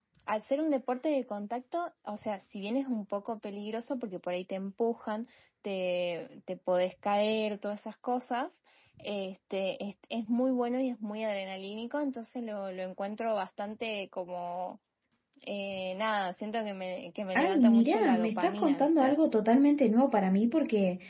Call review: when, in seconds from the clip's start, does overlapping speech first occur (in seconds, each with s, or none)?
17.4 s